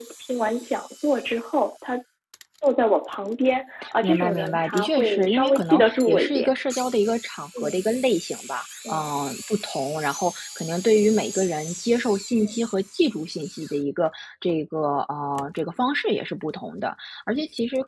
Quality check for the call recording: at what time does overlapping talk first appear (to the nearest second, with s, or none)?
4 s